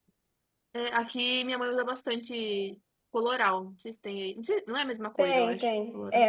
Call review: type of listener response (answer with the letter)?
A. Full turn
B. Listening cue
A